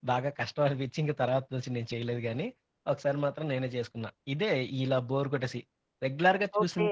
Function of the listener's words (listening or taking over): listening